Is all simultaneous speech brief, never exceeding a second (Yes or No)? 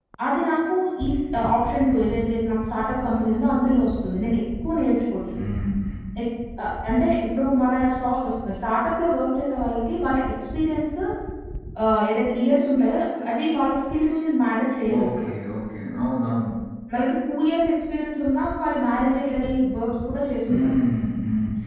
Yes